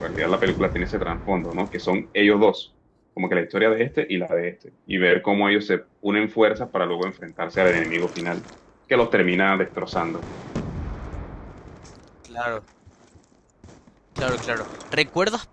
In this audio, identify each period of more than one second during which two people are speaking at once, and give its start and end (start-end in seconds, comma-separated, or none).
none